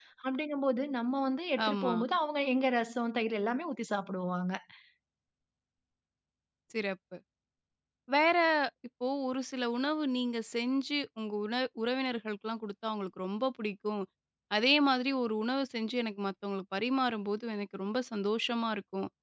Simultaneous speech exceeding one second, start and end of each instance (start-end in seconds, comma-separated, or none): none